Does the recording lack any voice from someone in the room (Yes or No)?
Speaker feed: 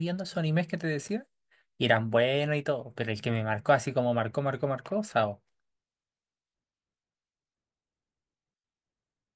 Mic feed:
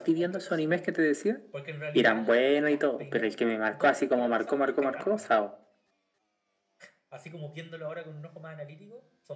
No